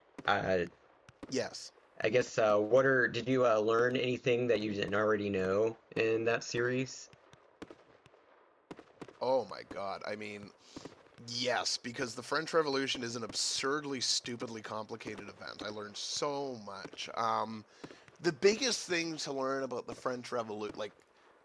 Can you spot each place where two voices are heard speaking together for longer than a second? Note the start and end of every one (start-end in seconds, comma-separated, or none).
none